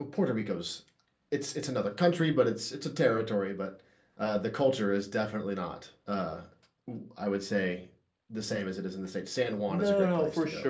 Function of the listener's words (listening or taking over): taking over